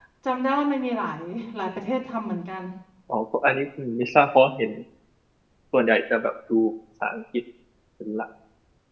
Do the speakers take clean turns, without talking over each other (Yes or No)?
Yes